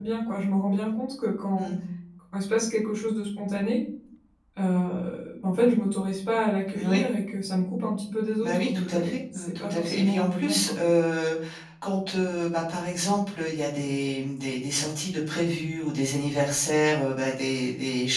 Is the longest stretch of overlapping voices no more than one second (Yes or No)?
No